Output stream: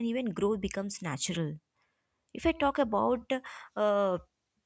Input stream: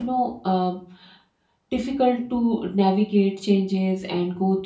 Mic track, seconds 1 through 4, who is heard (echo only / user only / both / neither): user only